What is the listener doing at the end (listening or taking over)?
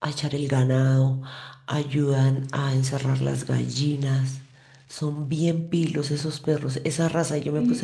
listening